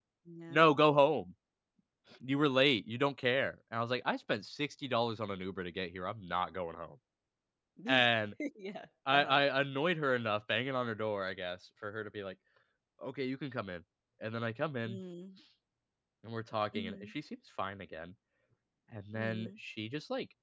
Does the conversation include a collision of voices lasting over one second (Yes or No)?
No